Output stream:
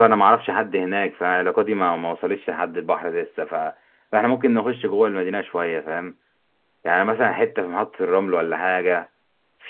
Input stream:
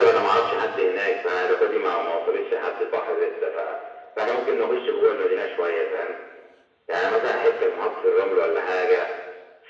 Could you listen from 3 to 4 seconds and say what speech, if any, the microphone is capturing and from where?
echo only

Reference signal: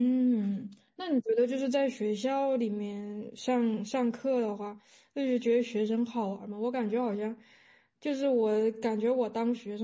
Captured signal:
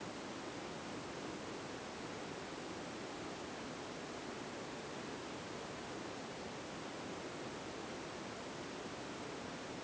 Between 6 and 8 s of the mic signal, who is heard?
neither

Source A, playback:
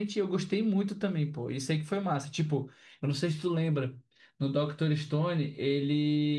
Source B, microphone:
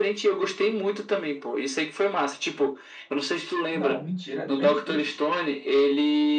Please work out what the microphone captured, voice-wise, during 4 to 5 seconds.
both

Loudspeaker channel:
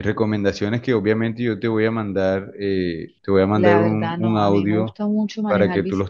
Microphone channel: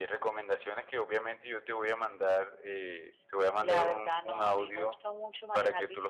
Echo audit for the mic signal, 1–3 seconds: echo only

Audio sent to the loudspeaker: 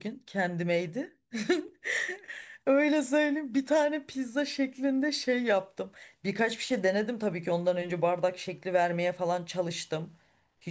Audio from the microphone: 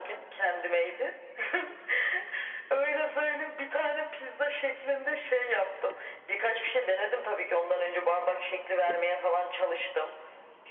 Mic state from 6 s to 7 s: echo only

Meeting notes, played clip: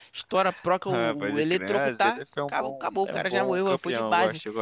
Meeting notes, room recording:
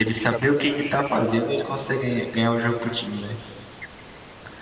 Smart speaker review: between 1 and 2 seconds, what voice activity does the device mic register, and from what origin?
user only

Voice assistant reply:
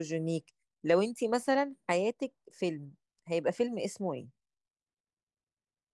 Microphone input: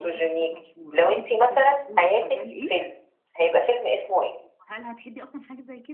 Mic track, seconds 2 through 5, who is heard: both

